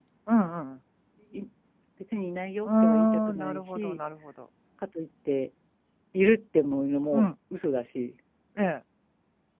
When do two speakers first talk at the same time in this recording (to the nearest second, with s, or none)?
3 s